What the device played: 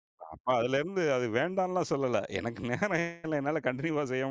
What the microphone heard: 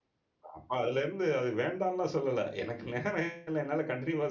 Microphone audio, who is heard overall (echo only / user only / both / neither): echo only